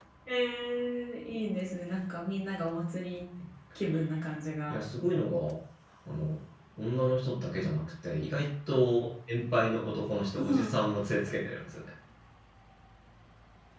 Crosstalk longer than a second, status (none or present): none